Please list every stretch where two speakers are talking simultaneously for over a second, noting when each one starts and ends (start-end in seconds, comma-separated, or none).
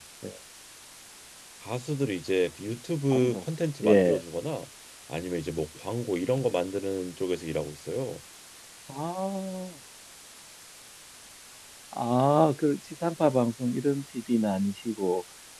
none